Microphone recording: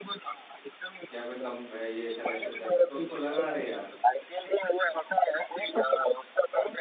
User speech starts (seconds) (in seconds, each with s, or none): 0.9 s